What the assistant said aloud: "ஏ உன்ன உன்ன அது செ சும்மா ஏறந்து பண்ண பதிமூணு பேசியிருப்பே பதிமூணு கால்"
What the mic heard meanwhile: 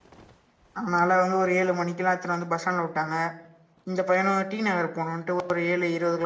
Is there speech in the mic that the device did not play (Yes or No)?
Yes